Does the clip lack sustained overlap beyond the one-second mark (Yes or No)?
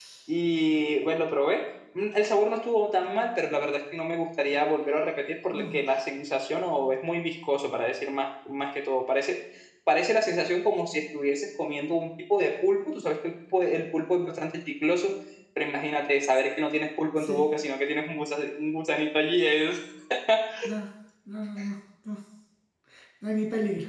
Yes